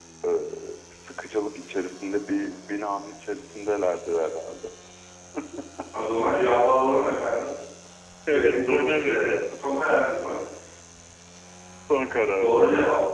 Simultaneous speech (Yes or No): Yes